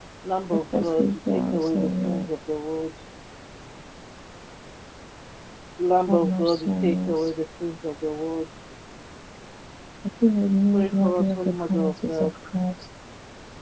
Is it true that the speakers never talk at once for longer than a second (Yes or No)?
No